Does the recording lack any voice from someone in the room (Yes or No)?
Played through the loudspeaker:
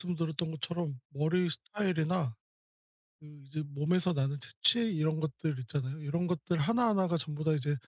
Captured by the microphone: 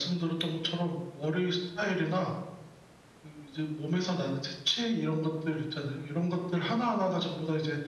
Yes